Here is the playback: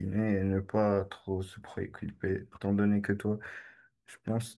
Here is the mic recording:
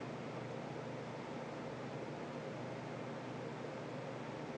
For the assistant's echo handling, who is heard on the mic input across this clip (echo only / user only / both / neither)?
neither